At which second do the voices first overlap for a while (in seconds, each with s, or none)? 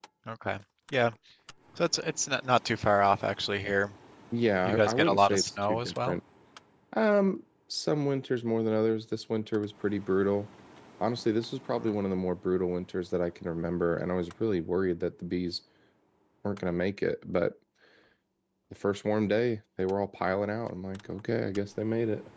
4.6 s